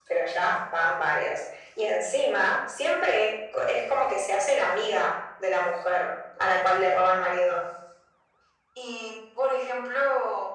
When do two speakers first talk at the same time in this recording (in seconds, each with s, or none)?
none